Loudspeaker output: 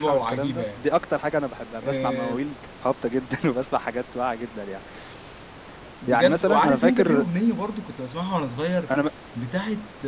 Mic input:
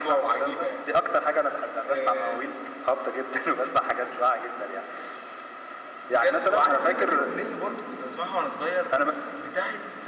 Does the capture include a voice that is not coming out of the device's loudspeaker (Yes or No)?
No